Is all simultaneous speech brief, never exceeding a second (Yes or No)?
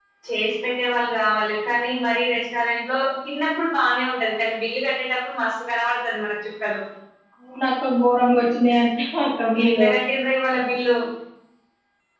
Yes